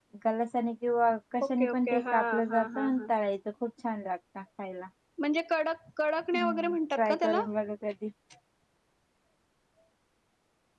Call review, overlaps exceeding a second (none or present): present